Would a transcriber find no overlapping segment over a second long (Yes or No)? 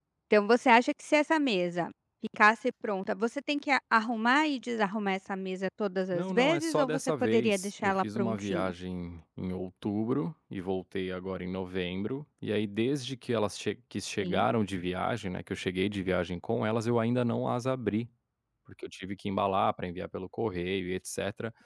No